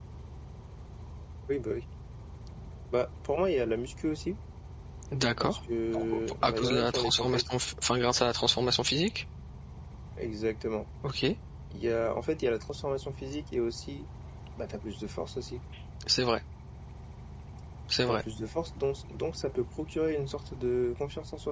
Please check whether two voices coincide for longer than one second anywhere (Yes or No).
Yes